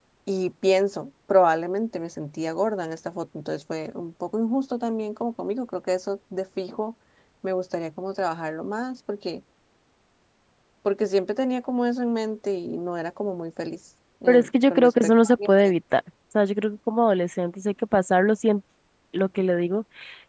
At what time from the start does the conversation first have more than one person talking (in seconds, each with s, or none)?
14.3 s